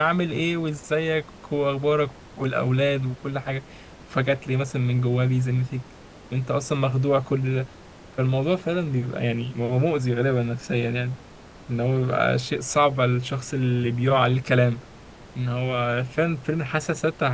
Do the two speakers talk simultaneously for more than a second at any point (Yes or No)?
No